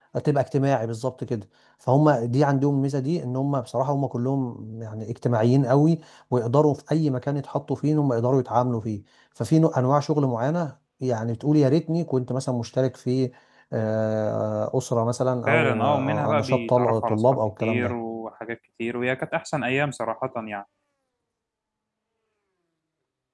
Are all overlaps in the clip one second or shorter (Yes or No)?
No